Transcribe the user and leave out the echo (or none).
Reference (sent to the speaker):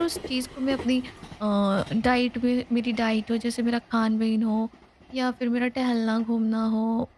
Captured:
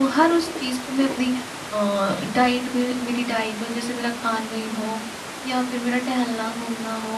none